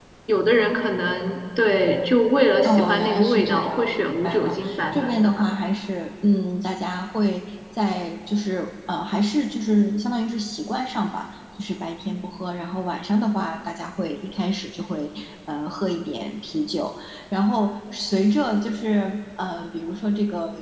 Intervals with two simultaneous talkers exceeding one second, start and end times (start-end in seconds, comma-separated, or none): 2.6-5.5